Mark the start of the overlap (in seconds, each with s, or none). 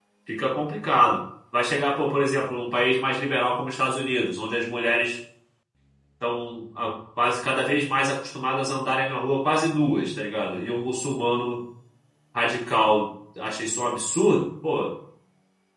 none